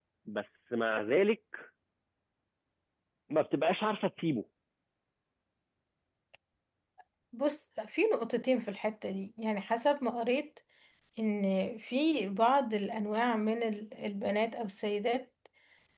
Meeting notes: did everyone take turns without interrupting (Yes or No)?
Yes